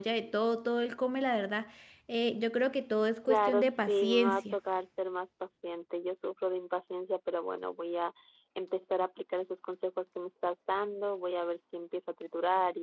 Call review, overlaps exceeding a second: present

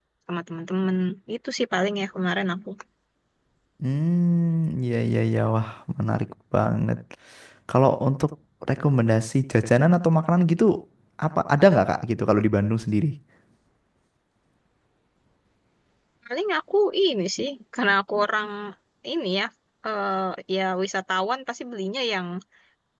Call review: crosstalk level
none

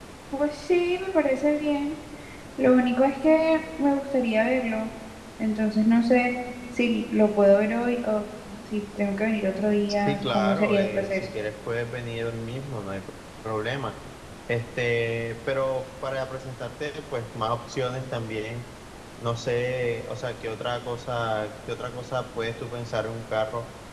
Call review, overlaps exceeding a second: present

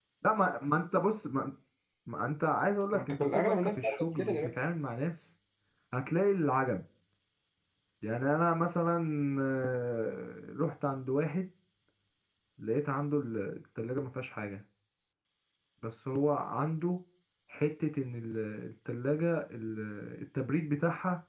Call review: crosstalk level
present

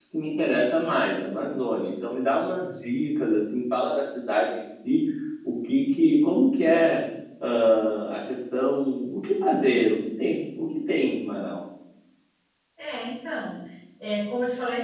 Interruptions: none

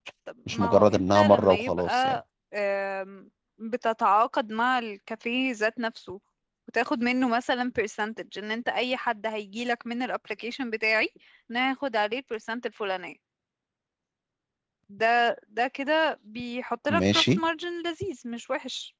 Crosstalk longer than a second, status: present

